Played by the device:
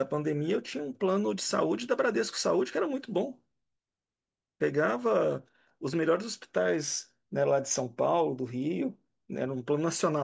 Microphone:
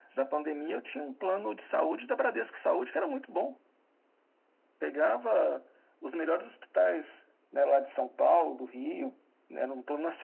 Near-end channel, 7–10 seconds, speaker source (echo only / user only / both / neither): echo only